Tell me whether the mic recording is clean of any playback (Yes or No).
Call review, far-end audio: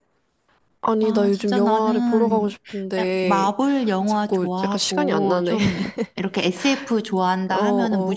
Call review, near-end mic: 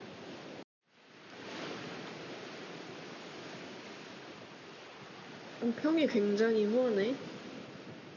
Yes